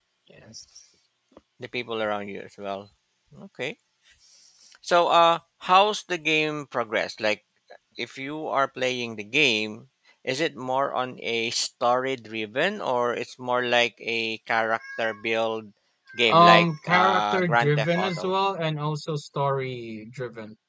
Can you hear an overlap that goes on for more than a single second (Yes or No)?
Yes